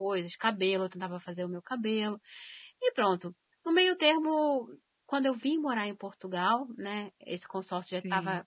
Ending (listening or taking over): listening